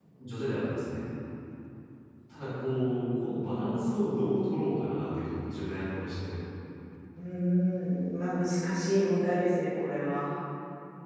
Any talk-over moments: No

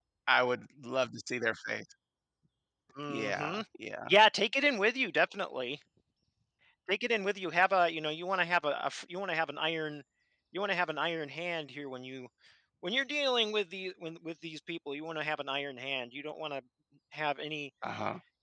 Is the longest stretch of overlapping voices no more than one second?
Yes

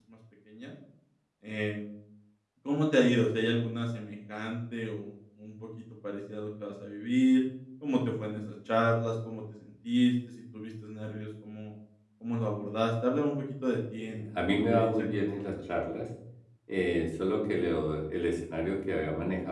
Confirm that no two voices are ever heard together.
No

